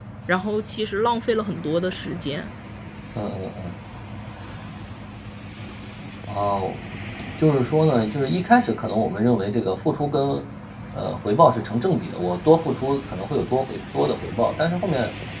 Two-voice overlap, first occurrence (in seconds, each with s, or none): none